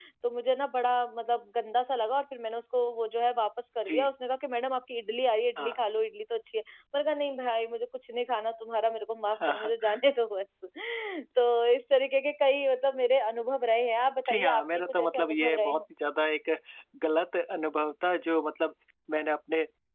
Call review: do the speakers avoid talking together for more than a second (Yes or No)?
No